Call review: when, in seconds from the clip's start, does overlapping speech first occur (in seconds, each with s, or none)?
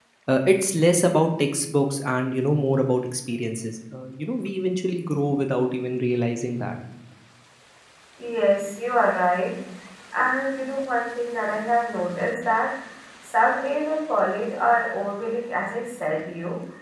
none